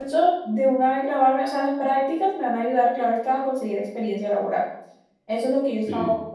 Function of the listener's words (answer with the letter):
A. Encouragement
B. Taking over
A